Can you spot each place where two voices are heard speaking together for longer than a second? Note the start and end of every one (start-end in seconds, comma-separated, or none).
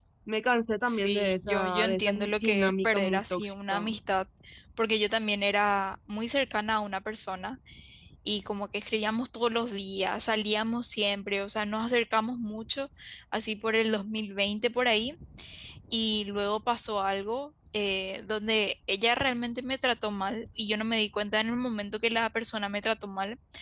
0.8-3.8